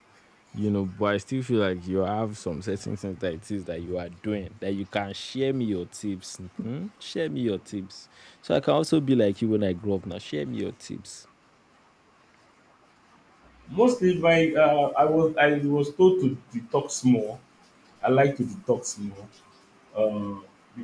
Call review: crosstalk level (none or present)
none